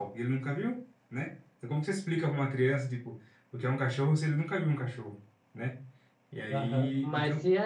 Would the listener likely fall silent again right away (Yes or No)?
No